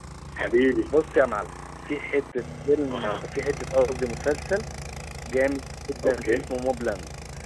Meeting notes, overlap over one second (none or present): none